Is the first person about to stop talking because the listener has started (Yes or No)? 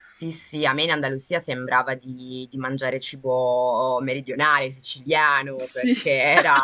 No